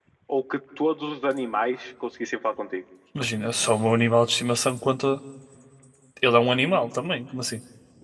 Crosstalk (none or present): none